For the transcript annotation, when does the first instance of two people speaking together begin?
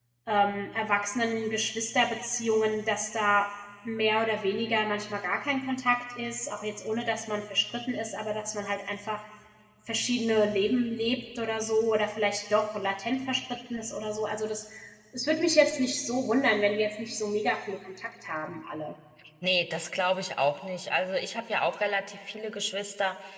none

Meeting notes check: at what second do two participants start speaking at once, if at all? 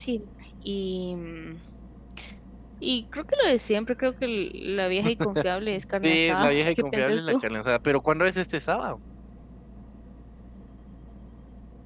6.0 s

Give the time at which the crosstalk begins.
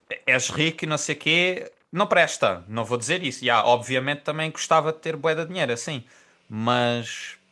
none

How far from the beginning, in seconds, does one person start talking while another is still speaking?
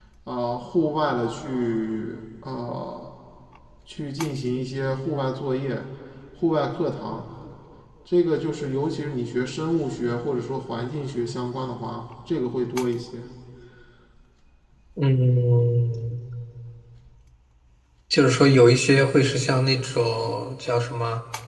none

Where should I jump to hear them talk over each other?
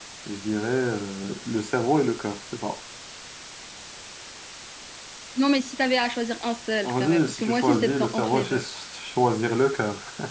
6.8 s

